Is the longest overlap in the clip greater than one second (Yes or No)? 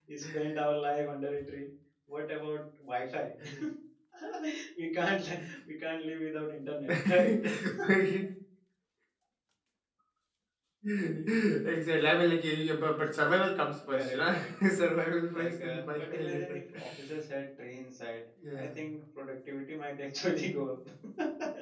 Yes